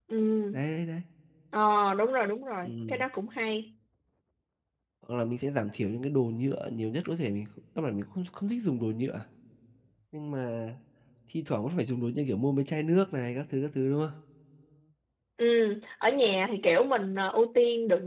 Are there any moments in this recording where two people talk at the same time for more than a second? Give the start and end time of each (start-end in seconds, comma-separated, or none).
none